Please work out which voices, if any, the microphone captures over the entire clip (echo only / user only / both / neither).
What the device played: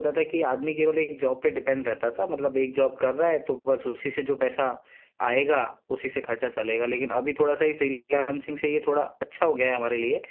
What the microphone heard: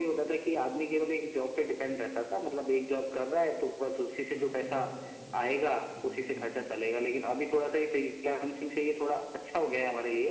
both